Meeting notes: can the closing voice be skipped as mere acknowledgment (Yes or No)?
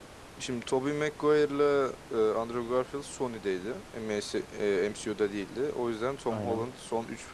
Yes